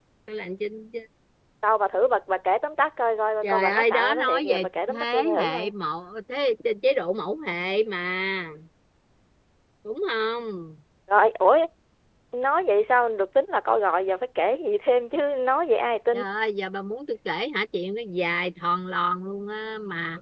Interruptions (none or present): present